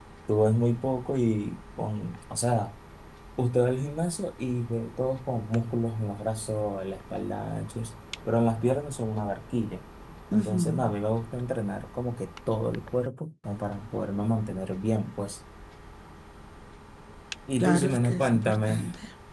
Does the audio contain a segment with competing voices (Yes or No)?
Yes